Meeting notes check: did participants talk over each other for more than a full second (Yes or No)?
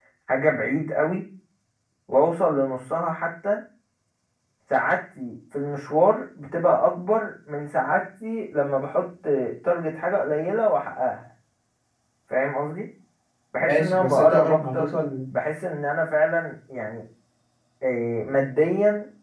Yes